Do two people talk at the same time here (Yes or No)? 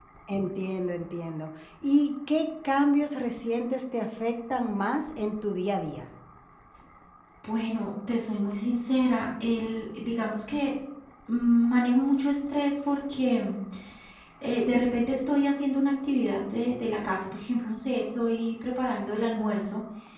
No